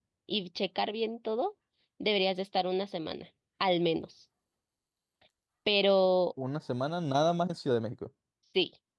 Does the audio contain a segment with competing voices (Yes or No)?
No